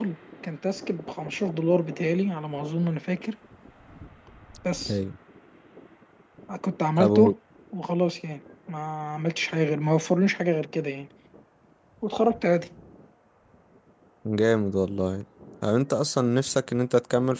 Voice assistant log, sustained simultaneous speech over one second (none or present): none